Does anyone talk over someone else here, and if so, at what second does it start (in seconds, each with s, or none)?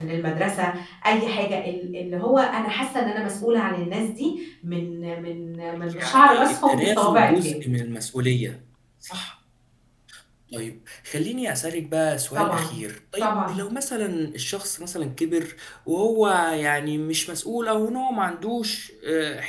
6.0 s